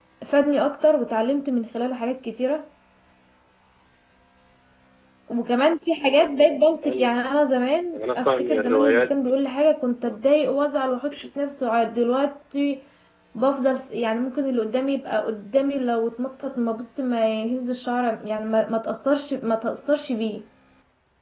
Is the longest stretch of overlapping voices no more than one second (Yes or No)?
No